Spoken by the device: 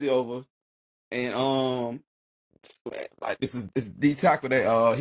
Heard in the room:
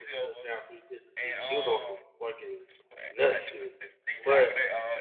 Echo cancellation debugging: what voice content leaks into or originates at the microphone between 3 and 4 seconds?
both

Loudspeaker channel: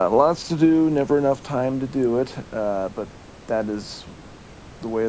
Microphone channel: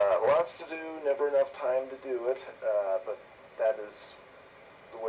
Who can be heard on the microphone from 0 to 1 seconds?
echo only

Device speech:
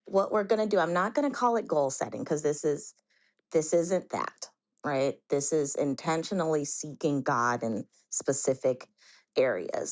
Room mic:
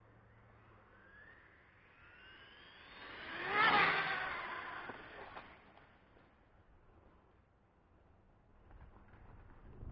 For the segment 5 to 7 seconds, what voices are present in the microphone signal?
neither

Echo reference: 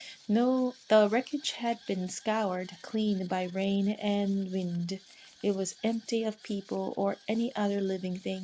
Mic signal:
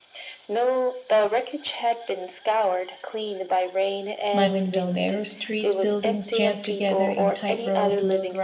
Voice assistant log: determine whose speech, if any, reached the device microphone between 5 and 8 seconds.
both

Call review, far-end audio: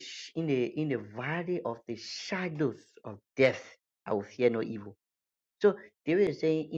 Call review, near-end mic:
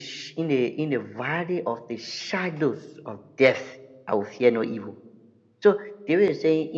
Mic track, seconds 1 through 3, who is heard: echo only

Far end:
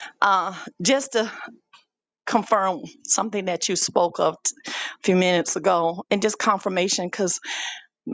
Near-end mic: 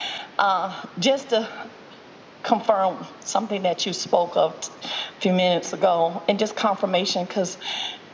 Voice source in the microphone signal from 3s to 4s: echo only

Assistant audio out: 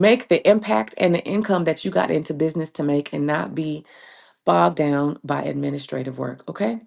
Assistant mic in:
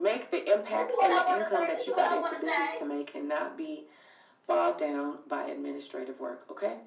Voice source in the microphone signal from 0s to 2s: both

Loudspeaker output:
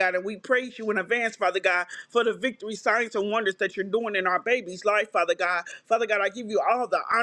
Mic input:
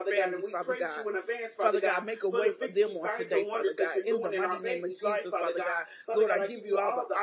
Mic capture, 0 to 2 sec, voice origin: both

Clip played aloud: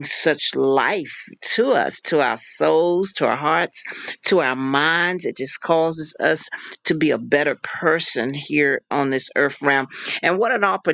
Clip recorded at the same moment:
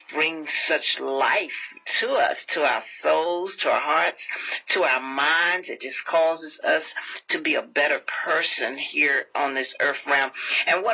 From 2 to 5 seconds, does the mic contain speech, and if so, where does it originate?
echo only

